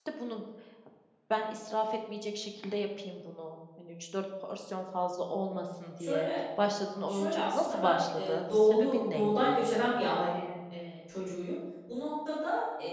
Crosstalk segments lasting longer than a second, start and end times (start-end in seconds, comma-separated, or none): 7.1-9.7